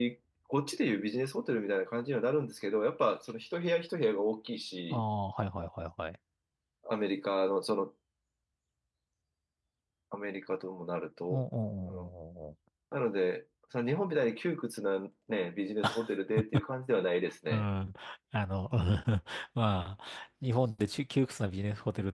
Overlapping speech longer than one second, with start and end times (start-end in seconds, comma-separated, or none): none